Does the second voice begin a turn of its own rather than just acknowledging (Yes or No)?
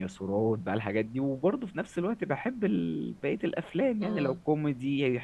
No